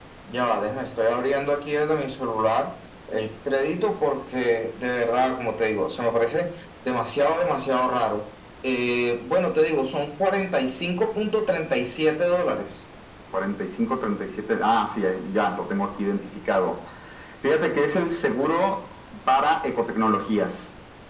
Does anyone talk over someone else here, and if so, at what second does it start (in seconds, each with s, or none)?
none